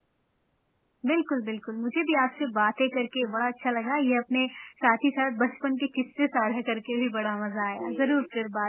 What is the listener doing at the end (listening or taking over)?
listening